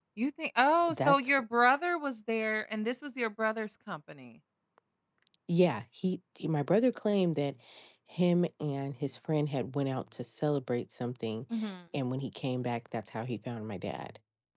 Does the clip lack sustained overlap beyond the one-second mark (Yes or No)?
Yes